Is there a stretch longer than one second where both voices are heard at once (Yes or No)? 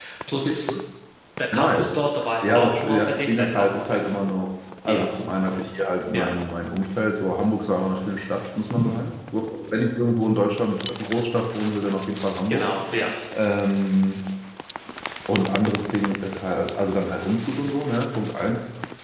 Yes